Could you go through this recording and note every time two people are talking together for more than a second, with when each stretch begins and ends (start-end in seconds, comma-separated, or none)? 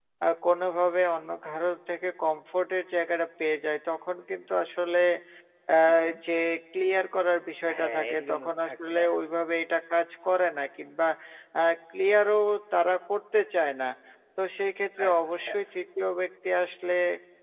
7.8-9.0